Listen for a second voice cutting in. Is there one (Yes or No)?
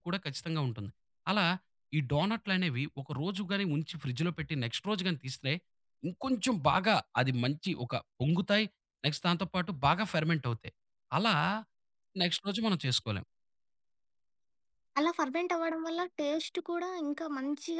No